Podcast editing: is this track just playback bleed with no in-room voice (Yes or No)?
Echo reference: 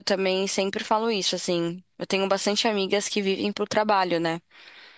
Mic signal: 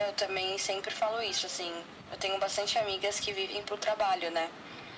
Yes